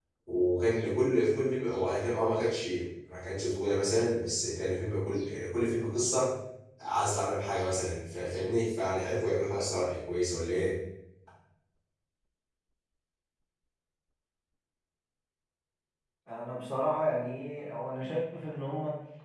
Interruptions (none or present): none